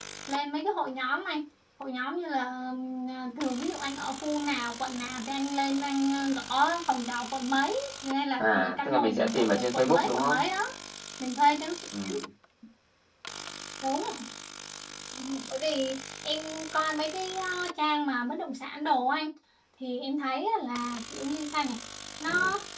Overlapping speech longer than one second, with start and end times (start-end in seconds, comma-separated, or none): 8.4-10.4